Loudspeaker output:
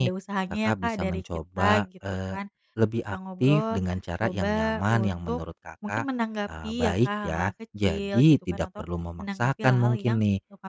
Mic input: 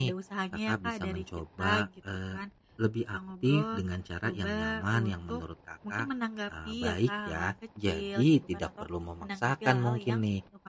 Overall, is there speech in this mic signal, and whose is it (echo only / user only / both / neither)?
echo only